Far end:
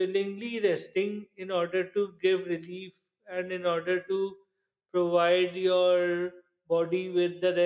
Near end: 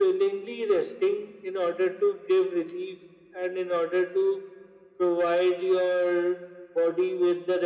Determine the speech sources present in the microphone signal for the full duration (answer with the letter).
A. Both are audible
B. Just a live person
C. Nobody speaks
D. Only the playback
D